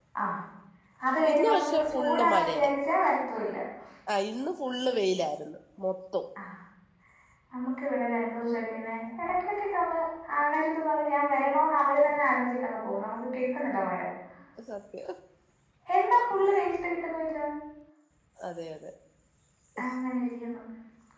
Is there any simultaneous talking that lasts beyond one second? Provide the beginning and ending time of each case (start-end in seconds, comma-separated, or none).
1.3-2.7